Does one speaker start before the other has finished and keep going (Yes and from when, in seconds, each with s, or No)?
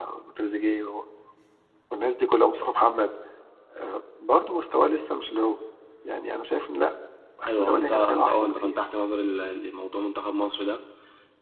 Yes, from 7.5 s